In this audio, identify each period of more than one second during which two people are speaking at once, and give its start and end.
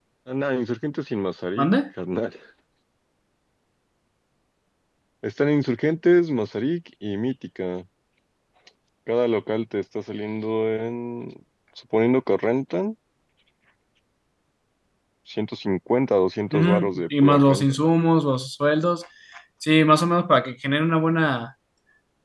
16.5-17.7

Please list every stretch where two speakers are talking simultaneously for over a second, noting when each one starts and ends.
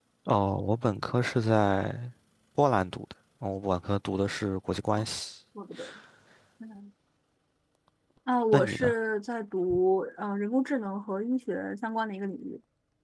none

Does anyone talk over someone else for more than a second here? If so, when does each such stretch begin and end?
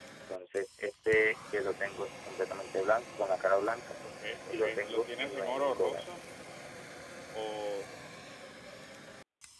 4.5-6.0

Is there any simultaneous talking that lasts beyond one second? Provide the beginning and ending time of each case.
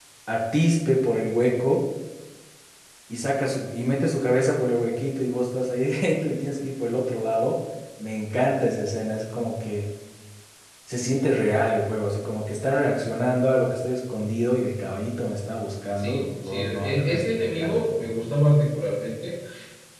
16.0-18.1

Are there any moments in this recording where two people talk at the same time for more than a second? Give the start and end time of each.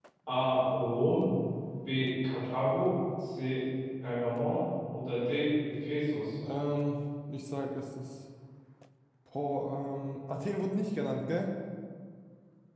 none

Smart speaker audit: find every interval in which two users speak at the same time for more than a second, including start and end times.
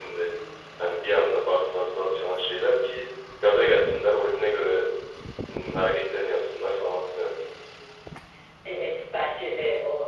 none

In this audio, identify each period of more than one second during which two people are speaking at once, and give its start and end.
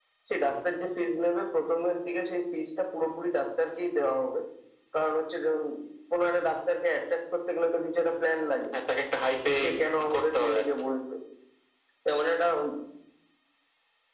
9.4-10.7

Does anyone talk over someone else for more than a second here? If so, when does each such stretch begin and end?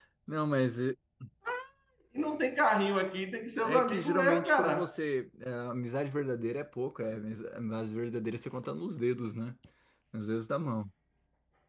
3.6-5.0

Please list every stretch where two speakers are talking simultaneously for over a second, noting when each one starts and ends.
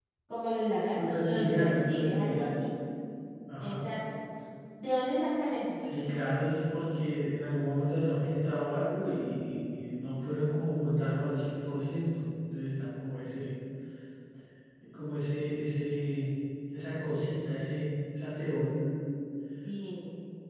0.9-2.6

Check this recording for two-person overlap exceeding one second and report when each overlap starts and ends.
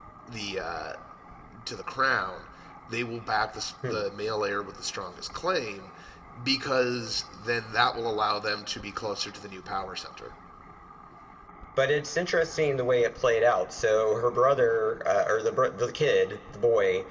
none

